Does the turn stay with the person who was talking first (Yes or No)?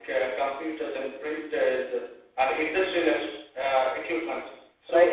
No